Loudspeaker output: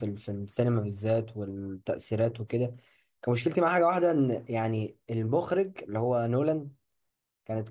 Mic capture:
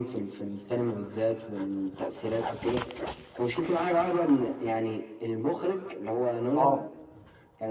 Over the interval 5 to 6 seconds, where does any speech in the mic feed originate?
echo only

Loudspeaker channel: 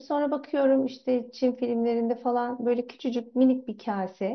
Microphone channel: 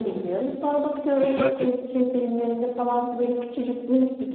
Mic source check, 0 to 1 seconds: echo only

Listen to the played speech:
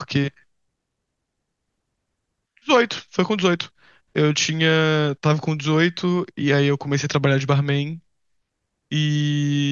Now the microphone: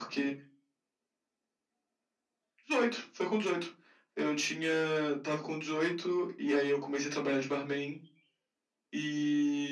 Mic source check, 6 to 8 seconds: echo only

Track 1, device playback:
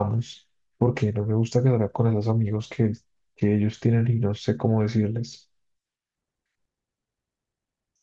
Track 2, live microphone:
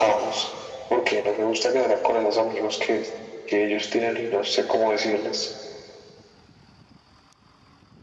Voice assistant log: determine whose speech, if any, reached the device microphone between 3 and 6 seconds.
echo only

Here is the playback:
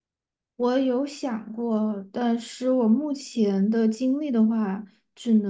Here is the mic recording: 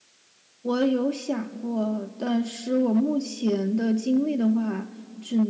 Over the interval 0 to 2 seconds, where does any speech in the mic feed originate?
echo only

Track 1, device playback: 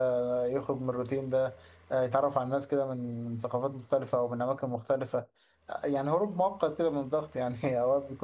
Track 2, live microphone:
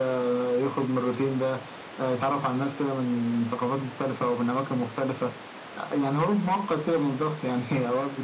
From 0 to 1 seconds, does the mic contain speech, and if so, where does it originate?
echo only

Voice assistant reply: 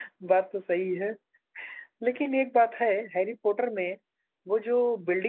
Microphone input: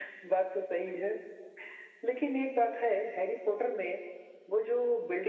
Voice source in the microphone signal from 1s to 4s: echo only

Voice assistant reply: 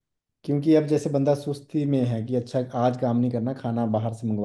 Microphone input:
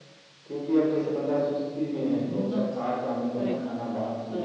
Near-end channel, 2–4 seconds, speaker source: both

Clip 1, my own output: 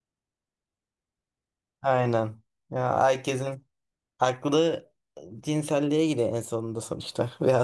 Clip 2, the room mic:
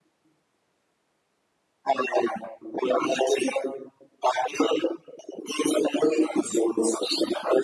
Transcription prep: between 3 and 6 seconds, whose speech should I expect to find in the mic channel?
echo only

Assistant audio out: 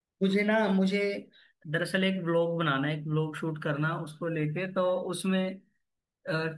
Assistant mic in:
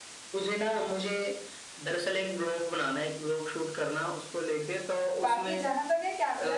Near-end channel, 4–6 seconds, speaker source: both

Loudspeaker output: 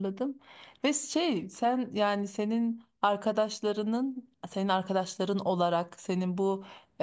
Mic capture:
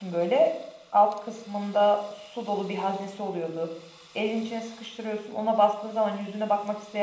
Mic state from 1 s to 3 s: user only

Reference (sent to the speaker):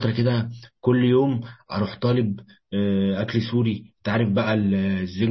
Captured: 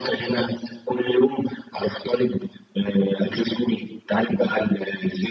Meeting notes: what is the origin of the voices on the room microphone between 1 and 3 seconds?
echo only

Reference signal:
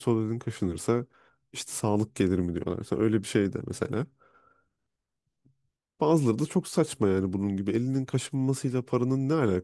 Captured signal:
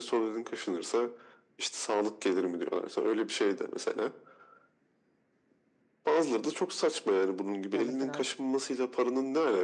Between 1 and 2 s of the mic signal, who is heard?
echo only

